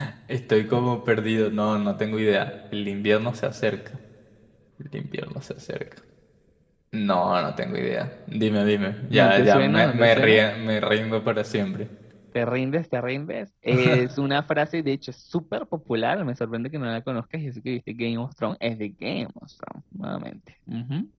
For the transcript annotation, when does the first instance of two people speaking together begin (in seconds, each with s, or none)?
9.1 s